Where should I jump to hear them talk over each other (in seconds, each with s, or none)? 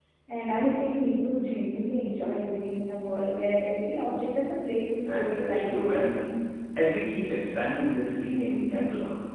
5.0 s